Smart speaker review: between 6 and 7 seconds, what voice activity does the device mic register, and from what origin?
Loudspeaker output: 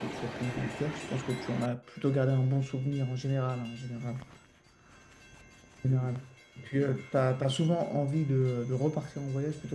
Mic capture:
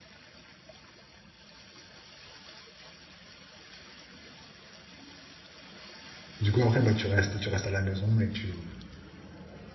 user only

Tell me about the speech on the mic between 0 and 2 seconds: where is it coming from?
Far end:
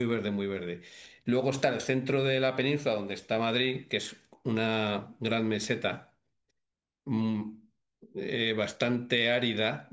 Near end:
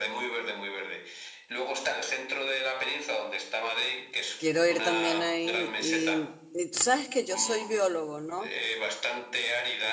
echo only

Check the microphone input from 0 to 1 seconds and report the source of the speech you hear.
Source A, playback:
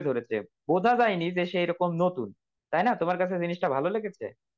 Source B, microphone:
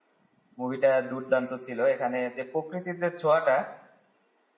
user only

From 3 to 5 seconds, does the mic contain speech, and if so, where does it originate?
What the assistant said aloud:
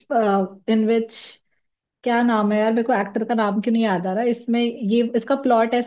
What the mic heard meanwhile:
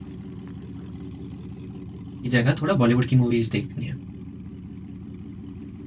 user only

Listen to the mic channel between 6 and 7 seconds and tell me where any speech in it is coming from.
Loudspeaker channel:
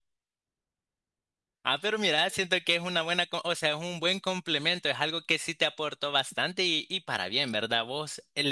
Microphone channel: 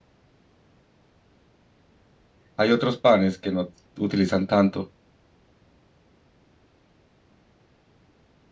neither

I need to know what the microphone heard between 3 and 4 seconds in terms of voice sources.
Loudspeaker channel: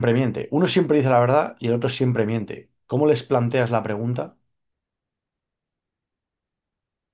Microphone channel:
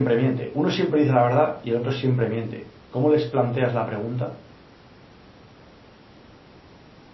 echo only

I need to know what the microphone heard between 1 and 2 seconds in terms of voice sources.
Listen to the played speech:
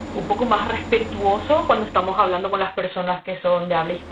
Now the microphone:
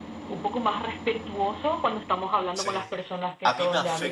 echo only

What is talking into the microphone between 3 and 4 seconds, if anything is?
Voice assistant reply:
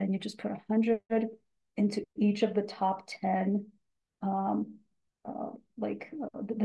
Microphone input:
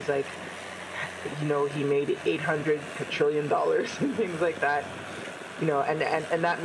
user only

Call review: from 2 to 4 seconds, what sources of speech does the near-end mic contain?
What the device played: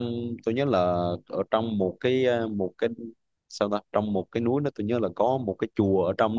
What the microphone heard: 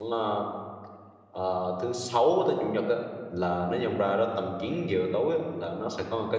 user only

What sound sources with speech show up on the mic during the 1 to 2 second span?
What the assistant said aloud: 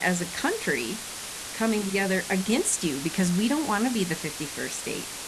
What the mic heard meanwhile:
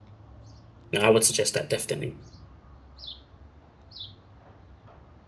user only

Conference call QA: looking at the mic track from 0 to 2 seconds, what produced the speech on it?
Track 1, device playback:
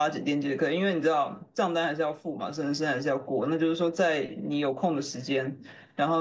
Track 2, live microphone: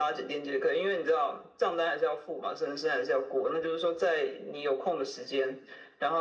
echo only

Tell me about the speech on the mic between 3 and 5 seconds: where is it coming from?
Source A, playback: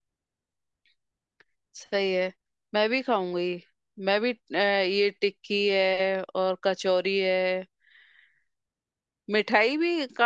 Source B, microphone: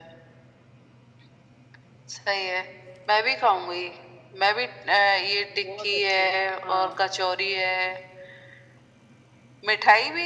echo only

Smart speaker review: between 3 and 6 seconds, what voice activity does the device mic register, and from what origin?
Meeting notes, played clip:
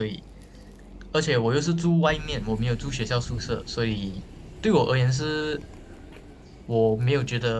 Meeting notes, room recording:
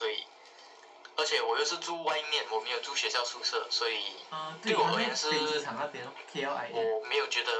both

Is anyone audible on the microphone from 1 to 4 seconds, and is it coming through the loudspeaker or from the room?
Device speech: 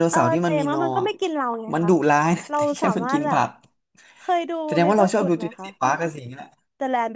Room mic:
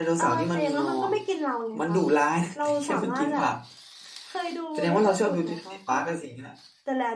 echo only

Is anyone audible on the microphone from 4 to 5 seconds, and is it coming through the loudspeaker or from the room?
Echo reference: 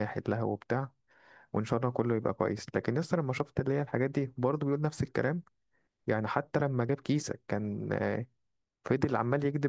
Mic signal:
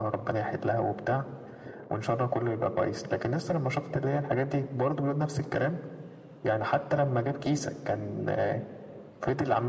echo only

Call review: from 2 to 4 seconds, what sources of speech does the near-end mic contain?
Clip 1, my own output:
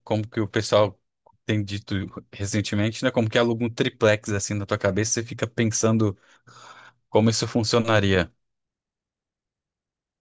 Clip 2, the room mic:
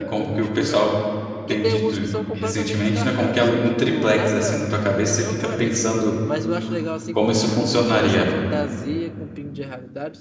both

